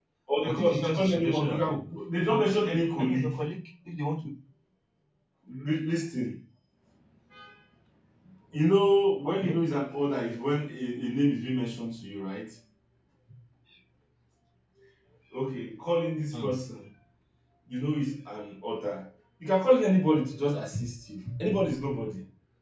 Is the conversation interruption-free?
No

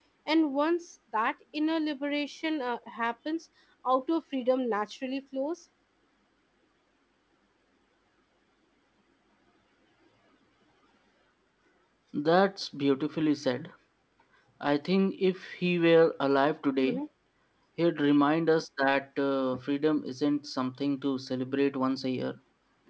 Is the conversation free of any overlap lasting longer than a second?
Yes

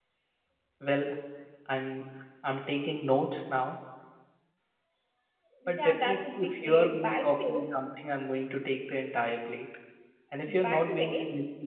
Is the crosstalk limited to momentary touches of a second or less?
No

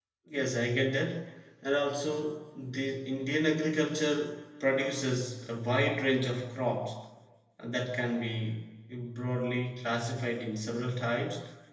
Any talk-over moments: No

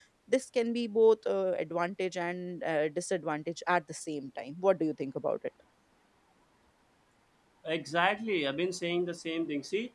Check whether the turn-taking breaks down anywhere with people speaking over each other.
No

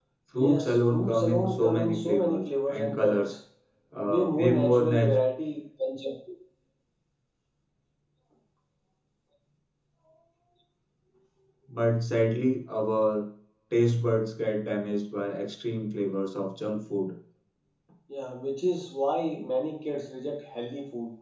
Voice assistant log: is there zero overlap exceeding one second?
No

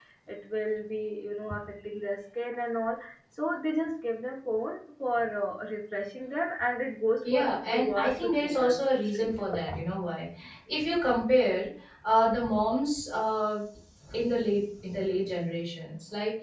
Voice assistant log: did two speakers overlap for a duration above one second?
Yes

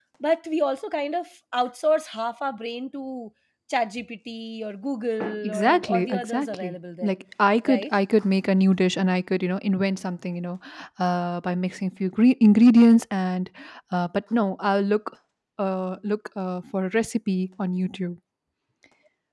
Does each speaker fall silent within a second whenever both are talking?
No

